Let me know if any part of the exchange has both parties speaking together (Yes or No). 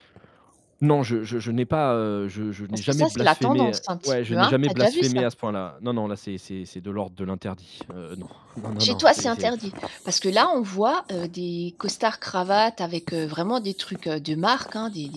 Yes